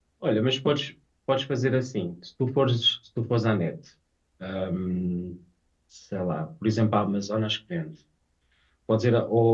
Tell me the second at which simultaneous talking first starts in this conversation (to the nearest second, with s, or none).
none